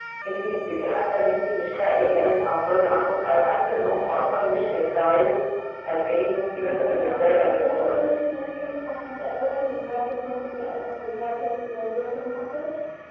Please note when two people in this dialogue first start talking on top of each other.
6.5 s

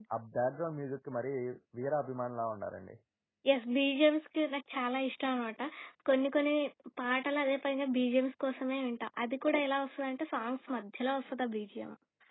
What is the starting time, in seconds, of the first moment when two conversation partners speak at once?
none

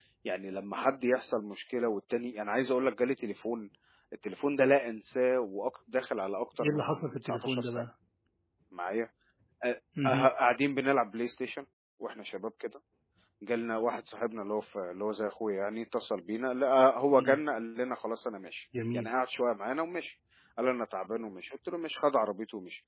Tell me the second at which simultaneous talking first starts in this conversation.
6.6 s

